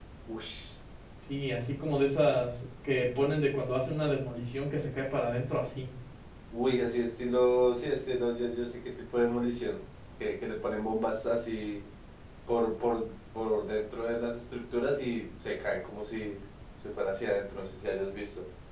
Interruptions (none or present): none